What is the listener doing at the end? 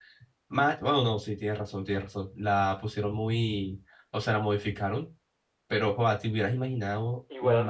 taking over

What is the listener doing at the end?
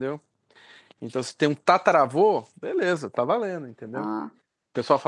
listening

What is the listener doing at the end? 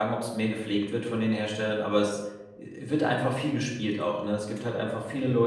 listening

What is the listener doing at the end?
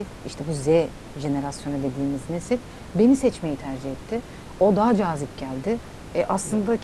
listening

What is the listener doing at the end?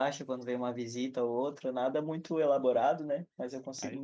taking over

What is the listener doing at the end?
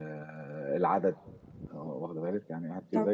listening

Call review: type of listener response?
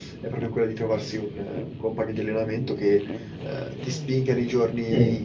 listening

